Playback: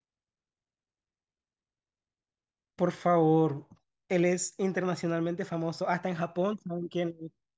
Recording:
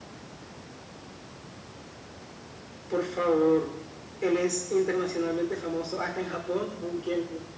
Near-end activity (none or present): none